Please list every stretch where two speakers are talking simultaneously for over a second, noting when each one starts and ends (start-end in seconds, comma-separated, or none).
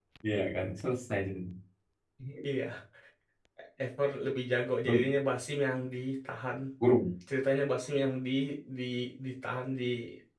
none